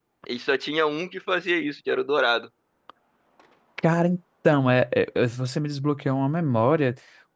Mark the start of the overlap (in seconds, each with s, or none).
none